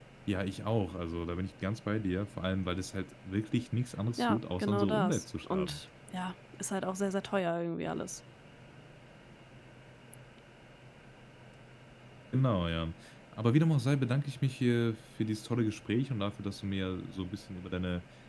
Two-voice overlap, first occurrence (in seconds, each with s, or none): 4.2 s